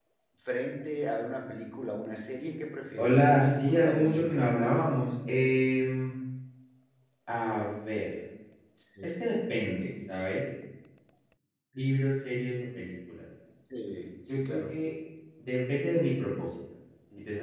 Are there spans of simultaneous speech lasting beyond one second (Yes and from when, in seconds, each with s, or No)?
Yes, from 3.0 s